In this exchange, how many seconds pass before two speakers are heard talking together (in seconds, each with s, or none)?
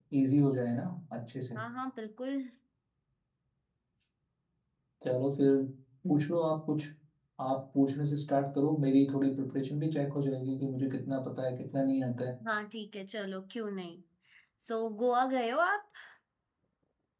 none